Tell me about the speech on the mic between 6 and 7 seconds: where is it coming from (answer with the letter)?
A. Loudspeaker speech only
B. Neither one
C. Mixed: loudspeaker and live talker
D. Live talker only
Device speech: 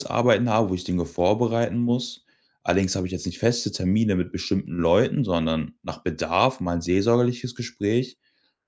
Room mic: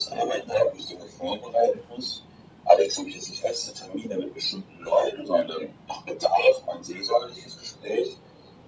A